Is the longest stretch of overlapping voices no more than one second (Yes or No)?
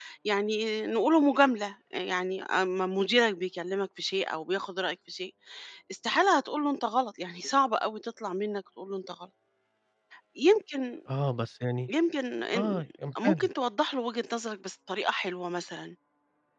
Yes